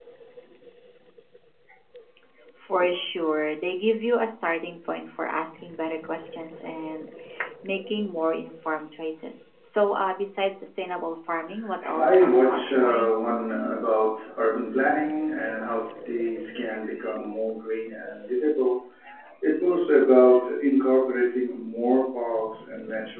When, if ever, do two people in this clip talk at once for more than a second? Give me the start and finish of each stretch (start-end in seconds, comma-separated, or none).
11.8-13.1